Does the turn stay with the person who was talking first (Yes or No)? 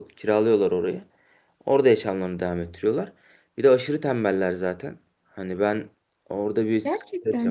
Yes